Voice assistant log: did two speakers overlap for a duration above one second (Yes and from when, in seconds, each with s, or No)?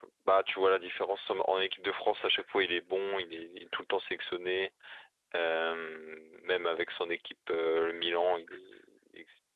No